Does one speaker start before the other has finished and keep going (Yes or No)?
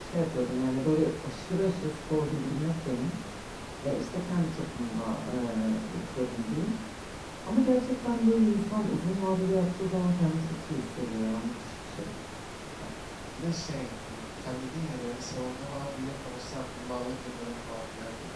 No